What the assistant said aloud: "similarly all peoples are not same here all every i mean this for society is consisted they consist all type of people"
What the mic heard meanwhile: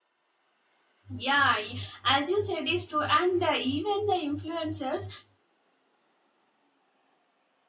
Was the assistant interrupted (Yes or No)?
Yes